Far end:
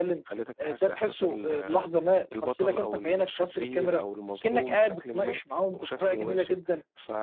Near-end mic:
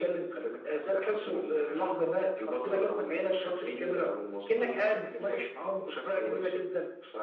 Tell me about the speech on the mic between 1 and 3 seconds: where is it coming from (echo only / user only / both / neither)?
echo only